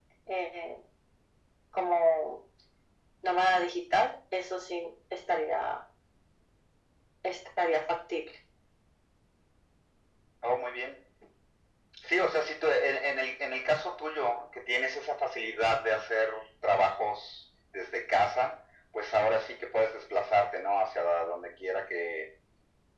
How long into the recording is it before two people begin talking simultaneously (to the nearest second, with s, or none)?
none